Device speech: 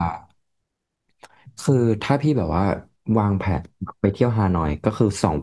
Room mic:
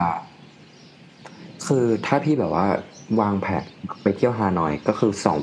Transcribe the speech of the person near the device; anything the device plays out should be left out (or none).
none